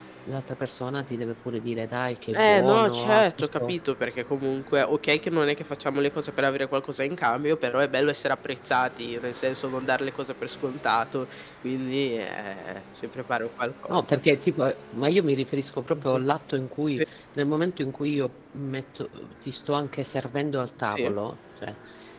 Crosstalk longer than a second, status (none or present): present